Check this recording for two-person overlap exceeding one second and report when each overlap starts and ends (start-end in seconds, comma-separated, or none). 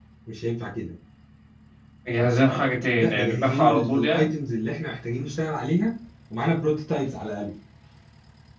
3.0-4.2